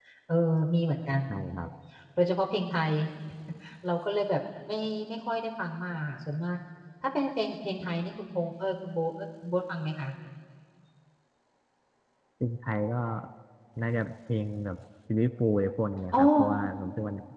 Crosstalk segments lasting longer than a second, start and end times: none

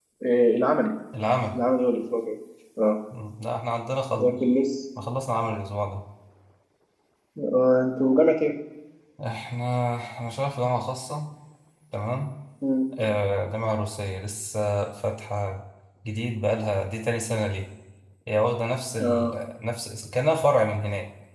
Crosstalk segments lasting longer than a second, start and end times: none

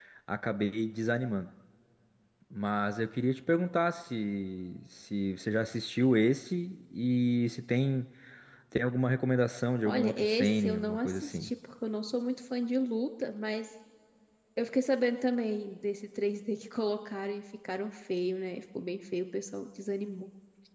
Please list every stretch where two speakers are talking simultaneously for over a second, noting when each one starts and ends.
9.8-11.5

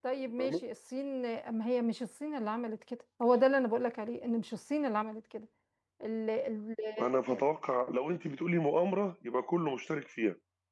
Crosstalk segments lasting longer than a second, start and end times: none

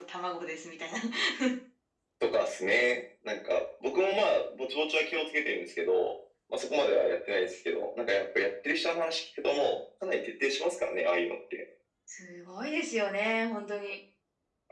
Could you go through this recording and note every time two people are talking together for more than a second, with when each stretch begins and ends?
none

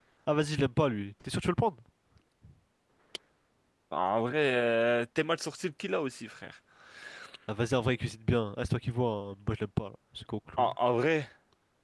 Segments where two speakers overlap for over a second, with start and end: none

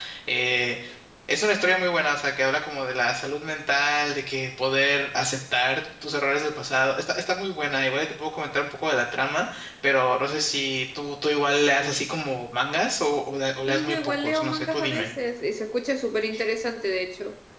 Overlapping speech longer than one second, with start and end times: 13.7-15.1

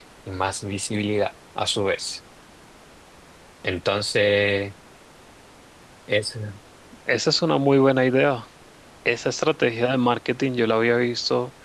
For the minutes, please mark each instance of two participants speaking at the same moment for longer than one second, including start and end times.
none

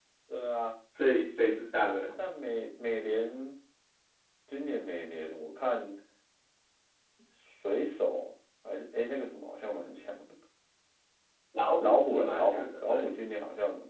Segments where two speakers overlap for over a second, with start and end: 11.8-13.1

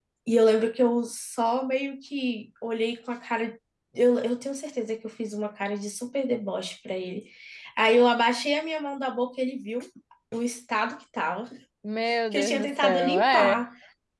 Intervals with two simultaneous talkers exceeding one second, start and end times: 12.3-13.6

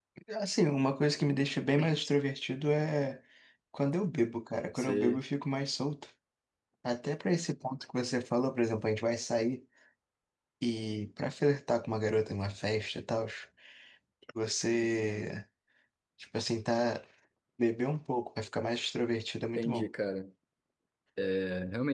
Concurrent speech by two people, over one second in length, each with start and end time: none

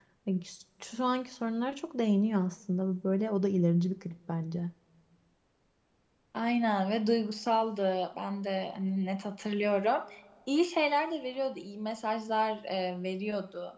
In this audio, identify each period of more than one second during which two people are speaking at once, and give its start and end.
none

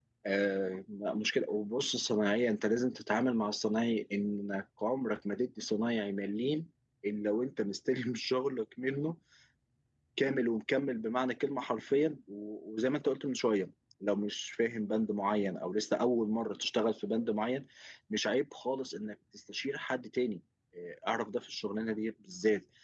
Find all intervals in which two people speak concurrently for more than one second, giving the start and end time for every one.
none

